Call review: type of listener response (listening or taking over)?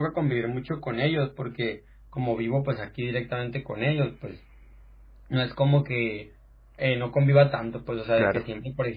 listening